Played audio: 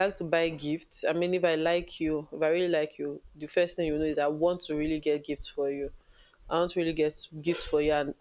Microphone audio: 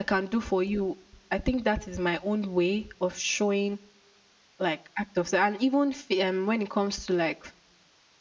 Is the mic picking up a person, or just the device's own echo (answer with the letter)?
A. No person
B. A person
B